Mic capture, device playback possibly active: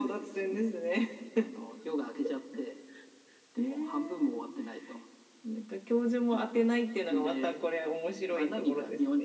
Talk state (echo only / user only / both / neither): echo only